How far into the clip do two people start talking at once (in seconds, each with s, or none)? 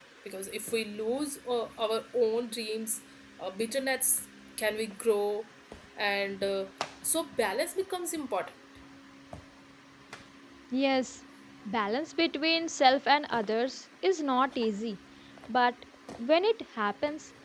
none